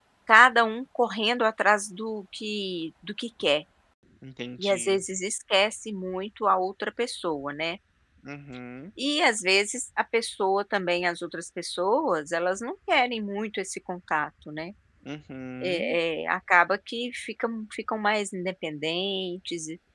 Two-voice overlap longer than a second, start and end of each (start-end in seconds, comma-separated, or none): none